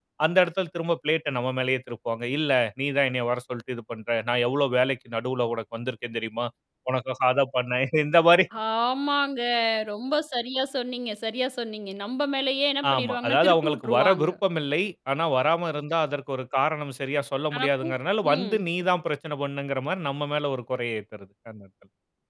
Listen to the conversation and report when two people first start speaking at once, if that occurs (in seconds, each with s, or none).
12.9 s